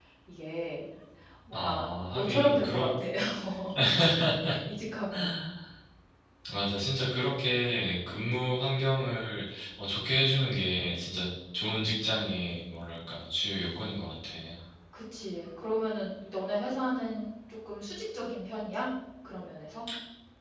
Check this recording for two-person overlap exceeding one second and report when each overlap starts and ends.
1.5-2.9

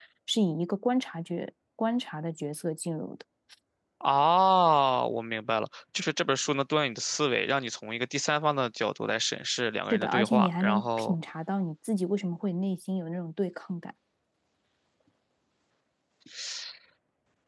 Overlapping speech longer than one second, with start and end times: 9.9-11.2

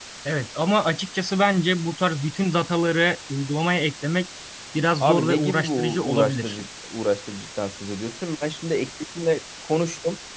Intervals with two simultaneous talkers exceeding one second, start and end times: 5.0-6.6

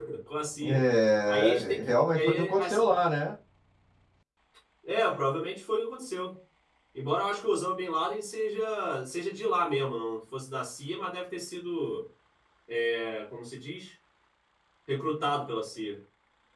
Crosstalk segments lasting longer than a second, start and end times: 1.3-2.8

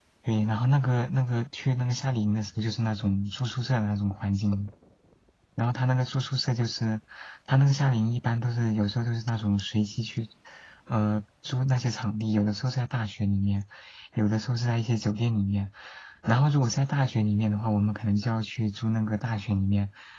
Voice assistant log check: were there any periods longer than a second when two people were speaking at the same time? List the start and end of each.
none

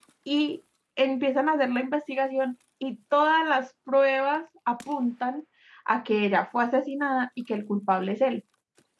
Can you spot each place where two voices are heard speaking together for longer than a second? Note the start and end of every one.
none

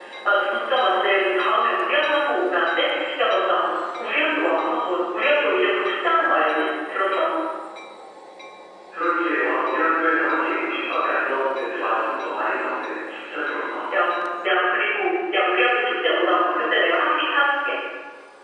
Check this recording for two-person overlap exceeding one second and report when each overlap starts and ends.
none

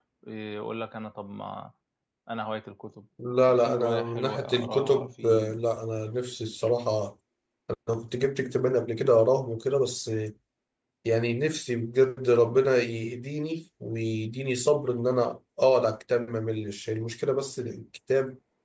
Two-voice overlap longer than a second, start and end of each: 3.6-5.5

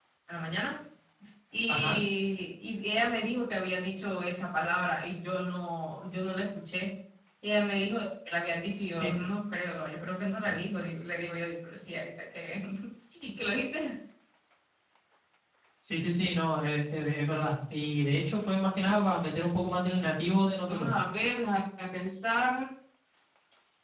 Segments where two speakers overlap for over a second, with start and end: none

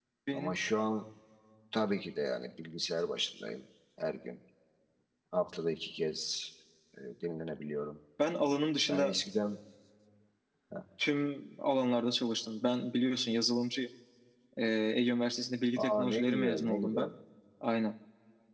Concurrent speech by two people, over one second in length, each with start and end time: 15.8-17.1

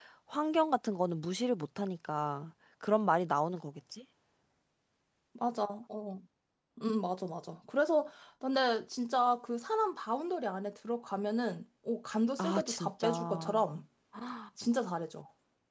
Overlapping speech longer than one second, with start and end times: 12.4-13.6

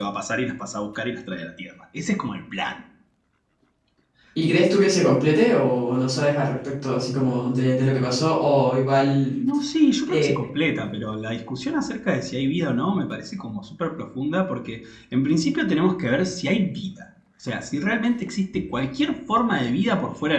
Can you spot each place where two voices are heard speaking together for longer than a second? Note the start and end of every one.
none

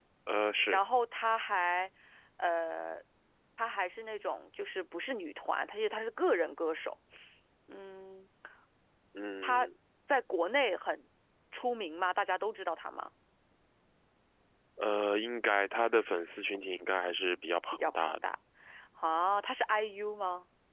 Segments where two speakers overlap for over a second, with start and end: none

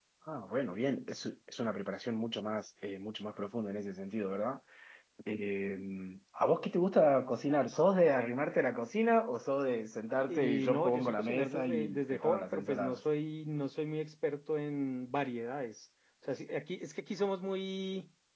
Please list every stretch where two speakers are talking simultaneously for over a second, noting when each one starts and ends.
10.3-13.0

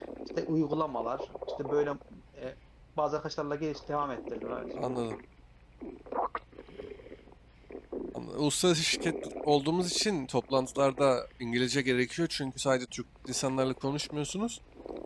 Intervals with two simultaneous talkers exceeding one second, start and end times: none

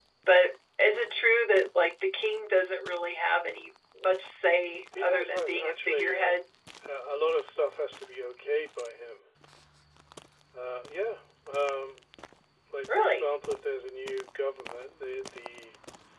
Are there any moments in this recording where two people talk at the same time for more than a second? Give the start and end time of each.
5.0-6.4

